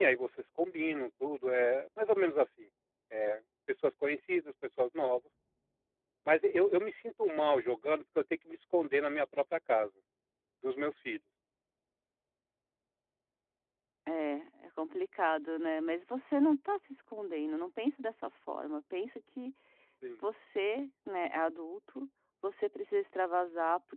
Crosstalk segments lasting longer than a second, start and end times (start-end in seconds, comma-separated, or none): none